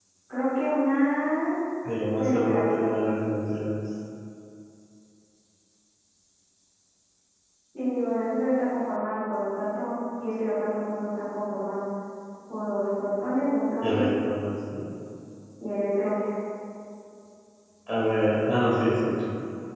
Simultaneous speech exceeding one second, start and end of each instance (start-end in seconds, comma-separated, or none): none